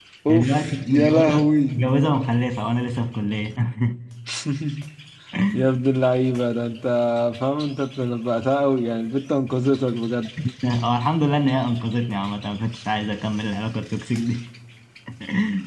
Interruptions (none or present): present